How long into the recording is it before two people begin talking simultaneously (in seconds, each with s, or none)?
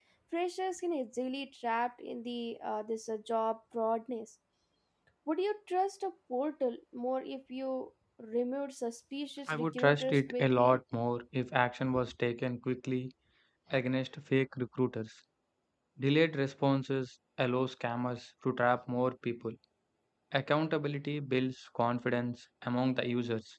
9.5 s